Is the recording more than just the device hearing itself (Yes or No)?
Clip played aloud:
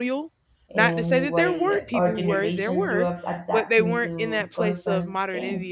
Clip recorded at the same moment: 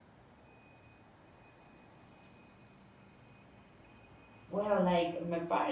Yes